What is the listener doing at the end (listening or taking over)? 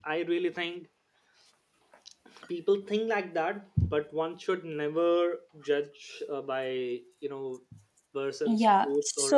taking over